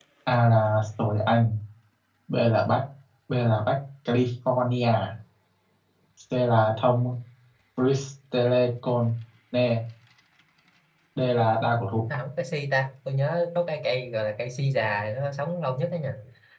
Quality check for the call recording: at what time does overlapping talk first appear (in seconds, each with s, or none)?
none